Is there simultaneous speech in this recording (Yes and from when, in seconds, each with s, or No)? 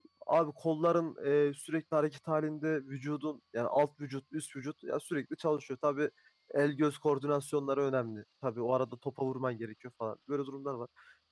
No